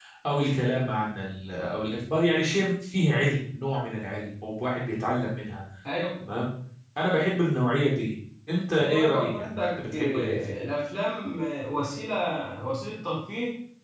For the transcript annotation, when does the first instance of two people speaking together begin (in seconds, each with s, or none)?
8.8 s